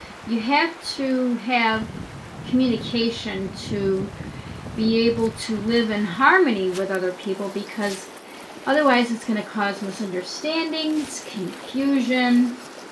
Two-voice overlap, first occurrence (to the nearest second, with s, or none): none